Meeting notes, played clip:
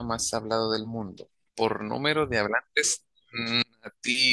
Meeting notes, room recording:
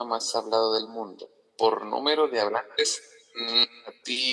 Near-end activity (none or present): none